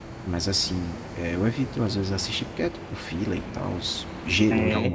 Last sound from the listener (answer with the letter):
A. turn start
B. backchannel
B